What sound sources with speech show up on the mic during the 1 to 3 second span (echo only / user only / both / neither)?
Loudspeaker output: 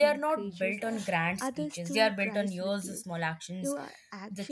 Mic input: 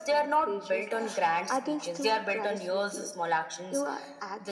echo only